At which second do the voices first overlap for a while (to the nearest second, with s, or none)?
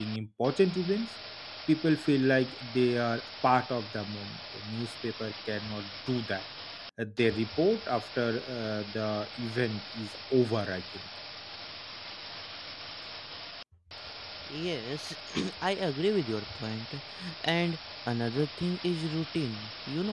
none